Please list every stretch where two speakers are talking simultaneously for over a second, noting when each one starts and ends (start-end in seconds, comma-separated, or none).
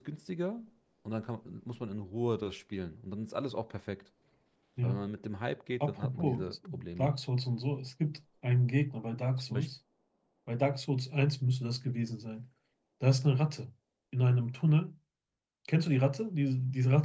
5.8-7.1